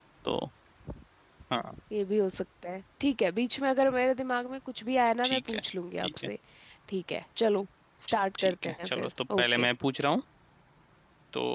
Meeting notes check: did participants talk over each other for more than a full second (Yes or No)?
Yes